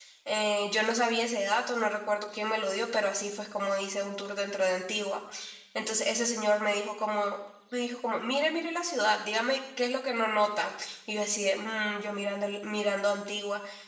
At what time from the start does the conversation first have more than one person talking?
none

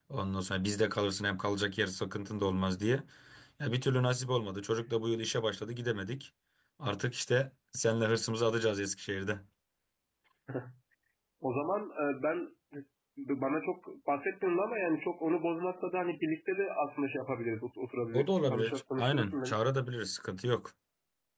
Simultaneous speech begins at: 18.1 s

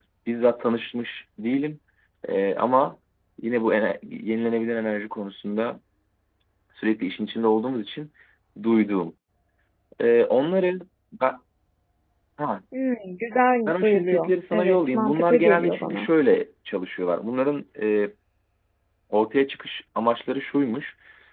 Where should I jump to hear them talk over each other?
13.7 s

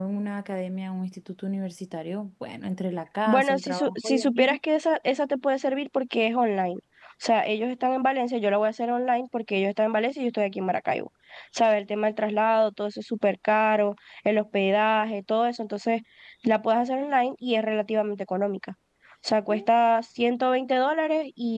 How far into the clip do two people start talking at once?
3.3 s

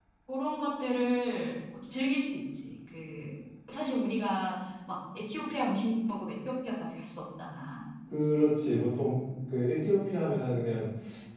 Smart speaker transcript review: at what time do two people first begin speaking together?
none

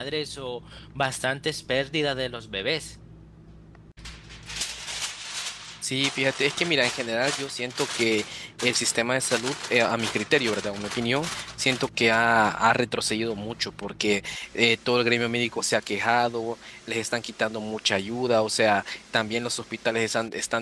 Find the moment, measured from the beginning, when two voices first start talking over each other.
none

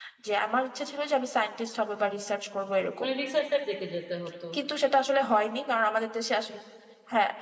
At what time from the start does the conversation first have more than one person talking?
none

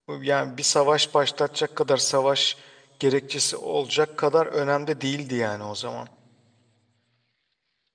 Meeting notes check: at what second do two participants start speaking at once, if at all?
none

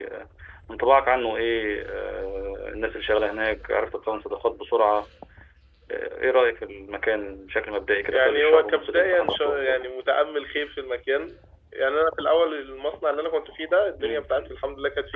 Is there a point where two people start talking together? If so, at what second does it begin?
8.1 s

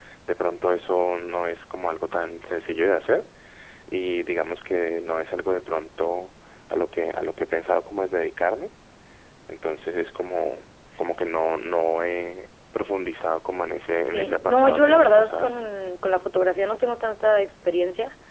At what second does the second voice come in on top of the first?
14.1 s

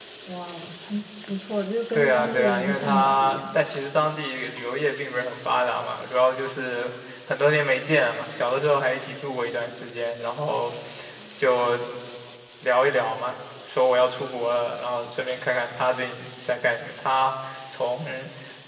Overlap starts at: 1.9 s

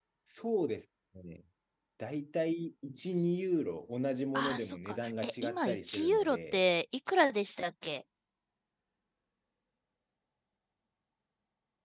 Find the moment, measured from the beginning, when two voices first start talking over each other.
4.3 s

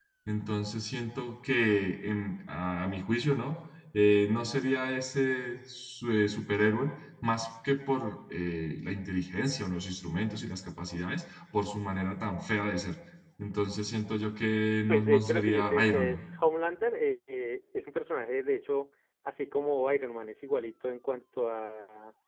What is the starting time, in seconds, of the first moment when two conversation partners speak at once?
14.9 s

